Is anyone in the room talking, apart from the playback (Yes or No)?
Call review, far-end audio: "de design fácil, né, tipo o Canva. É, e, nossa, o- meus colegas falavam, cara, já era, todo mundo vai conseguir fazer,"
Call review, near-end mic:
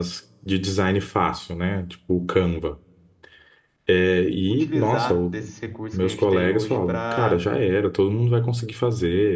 Yes